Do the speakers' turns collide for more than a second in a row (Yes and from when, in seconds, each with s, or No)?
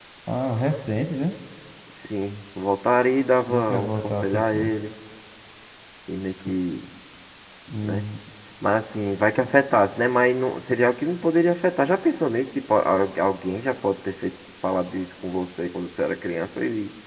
Yes, from 3.5 s